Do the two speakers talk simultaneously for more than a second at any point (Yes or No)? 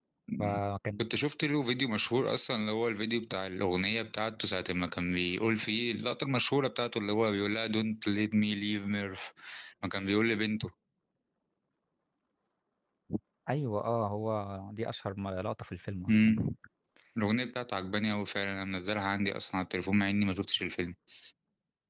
No